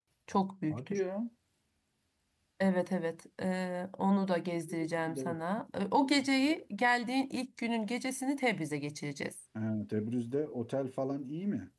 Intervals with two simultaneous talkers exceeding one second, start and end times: none

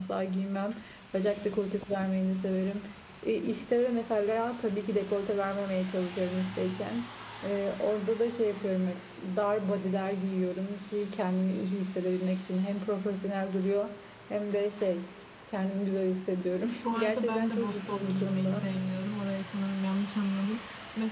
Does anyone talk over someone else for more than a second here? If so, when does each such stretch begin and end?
16.9-18.7

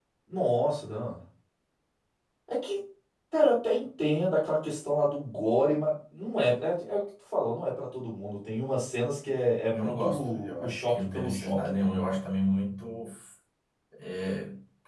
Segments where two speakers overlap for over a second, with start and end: 9.7-12.2

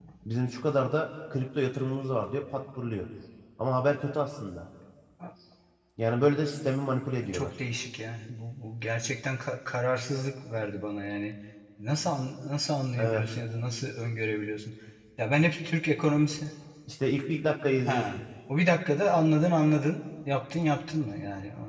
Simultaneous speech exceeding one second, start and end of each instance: none

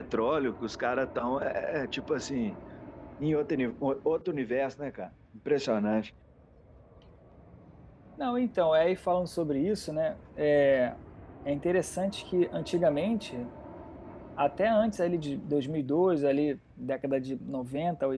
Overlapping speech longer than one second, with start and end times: none

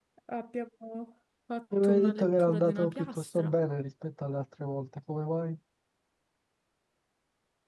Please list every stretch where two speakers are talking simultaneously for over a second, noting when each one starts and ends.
1.7-3.6

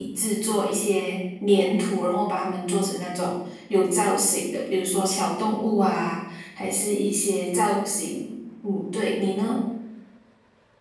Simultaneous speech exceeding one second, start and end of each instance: none

